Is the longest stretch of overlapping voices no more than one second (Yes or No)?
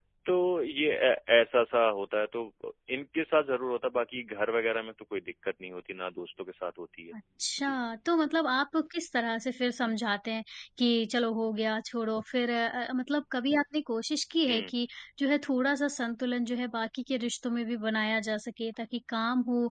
Yes